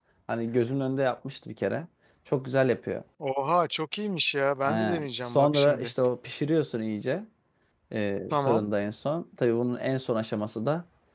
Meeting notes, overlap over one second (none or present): present